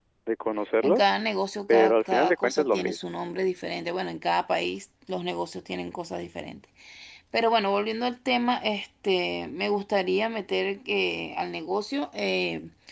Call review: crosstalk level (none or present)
present